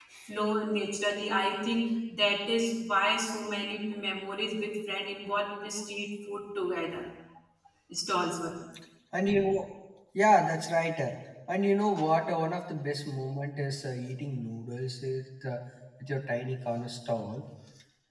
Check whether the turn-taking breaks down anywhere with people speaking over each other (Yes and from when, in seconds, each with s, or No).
No